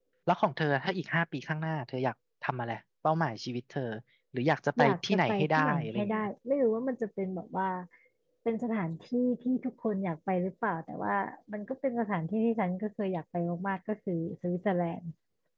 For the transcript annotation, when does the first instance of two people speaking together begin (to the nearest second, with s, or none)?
5 s